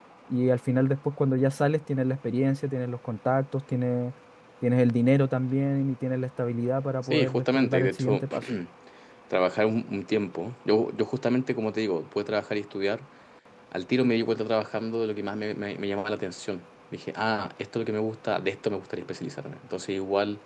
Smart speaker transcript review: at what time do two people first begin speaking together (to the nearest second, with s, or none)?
7 s